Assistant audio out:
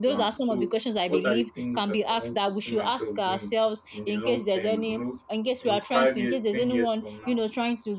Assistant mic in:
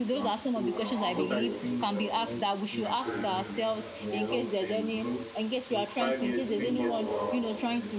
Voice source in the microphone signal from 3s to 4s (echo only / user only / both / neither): both